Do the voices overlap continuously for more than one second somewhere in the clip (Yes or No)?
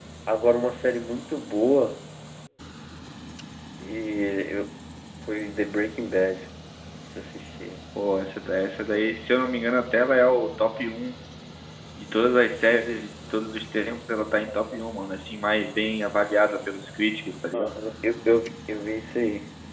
No